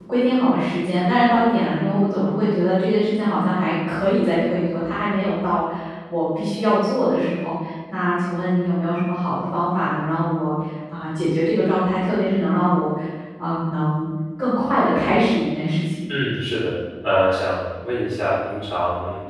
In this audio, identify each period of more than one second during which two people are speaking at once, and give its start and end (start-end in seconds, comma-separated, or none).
none